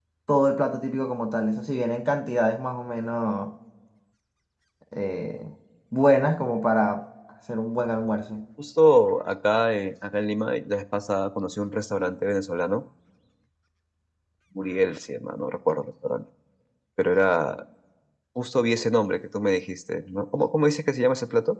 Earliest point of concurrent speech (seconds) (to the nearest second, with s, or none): none